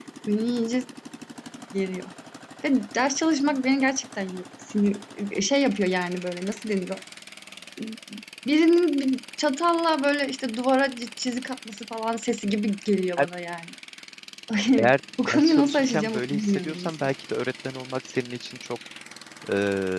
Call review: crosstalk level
present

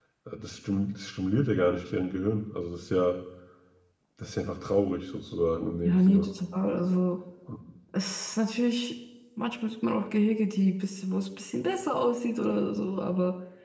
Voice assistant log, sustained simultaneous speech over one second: none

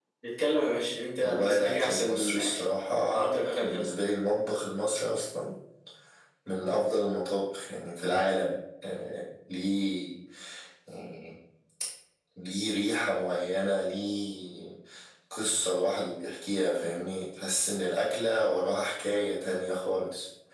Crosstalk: present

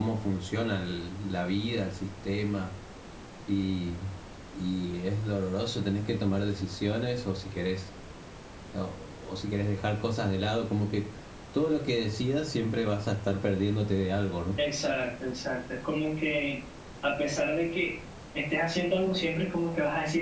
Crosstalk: none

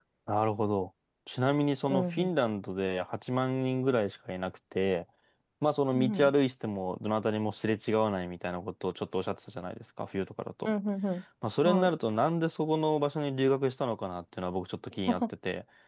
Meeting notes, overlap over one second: none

